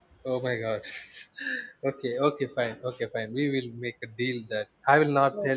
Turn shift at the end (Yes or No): No